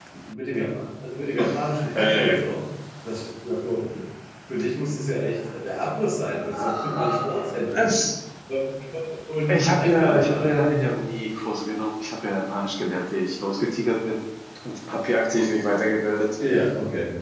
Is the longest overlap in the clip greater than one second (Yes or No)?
Yes